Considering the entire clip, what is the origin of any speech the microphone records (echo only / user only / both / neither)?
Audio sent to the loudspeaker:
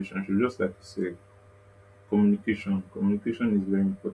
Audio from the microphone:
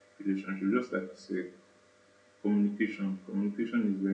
echo only